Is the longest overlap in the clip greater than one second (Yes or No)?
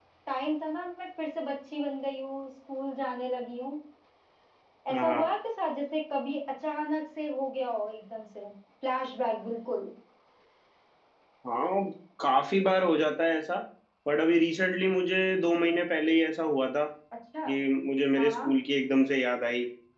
No